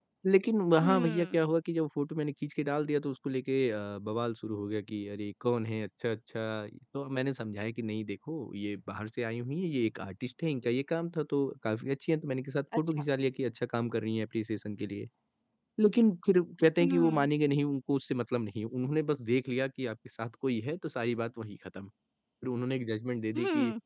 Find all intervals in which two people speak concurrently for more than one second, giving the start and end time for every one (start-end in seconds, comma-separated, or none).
none